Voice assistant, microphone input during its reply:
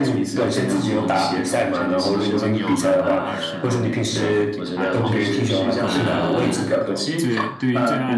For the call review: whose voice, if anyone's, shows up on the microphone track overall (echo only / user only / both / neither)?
both